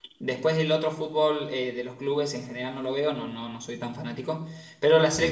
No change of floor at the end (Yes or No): Yes